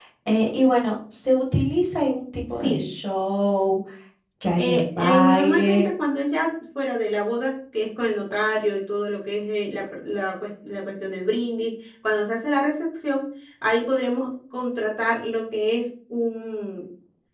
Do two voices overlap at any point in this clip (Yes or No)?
Yes